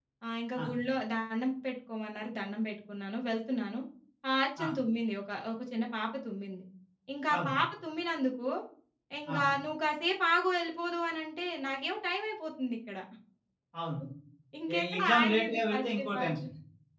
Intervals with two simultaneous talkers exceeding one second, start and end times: 14.7-16.4

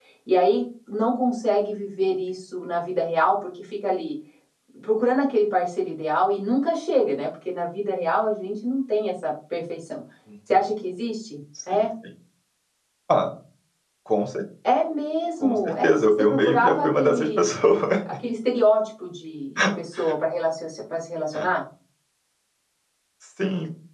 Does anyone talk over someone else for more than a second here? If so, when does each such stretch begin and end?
15.4-17.5

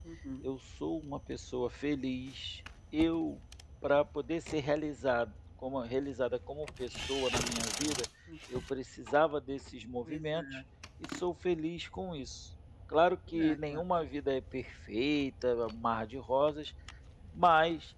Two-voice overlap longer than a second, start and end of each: none

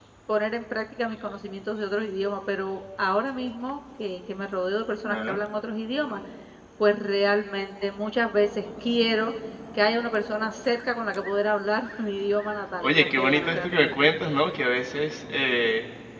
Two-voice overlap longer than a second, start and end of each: 12.8-14.1

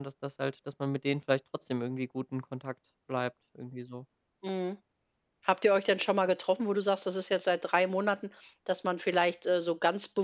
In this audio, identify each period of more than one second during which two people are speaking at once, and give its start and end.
none

